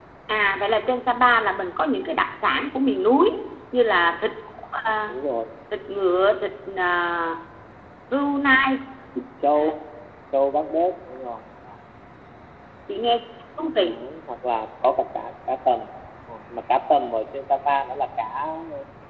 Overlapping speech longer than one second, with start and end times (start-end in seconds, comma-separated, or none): none